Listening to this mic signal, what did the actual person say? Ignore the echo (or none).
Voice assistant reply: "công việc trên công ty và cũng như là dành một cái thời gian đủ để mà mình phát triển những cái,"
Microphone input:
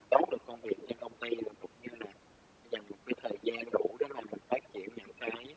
none